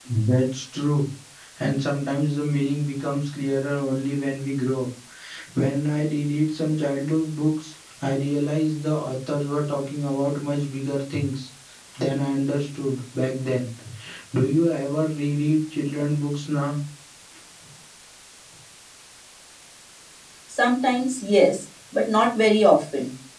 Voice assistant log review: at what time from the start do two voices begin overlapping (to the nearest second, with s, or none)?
none